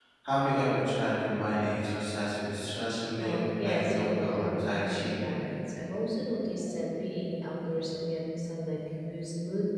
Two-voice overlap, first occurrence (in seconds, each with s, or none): 3.1 s